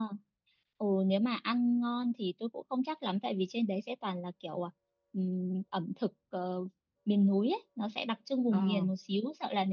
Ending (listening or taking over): listening